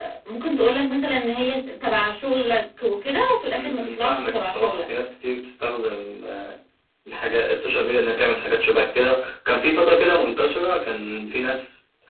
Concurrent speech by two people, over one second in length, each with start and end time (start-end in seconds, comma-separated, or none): 3.5-4.8